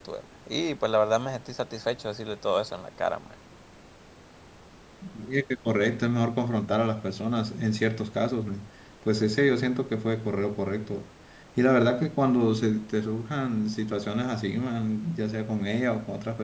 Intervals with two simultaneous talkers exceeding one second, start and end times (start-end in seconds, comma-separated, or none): none